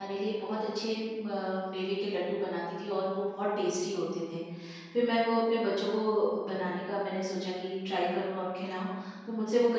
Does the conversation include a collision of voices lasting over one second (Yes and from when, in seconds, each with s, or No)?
No